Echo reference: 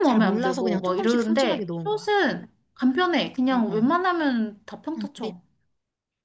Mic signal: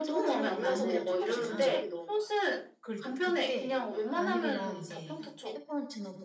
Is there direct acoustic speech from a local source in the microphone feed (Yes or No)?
Yes